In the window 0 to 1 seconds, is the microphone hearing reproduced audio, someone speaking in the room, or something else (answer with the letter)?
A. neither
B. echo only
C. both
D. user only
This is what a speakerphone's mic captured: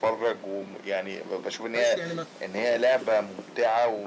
B